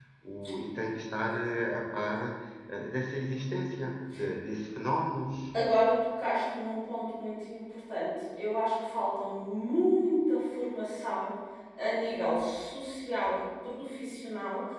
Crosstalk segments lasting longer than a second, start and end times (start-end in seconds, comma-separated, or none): none